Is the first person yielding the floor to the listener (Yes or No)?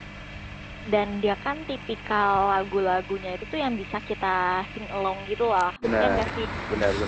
Yes